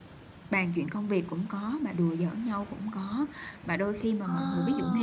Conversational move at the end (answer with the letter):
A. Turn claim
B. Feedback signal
B